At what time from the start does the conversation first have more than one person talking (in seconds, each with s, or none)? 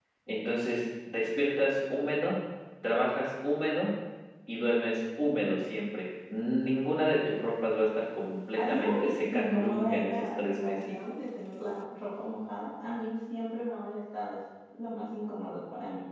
8.6 s